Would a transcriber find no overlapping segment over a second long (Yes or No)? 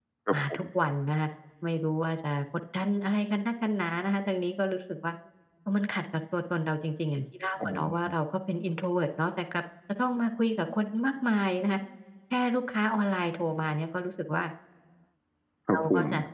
Yes